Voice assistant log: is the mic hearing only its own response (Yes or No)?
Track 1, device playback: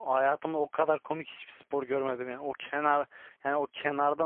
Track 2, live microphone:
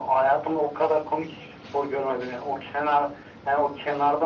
Yes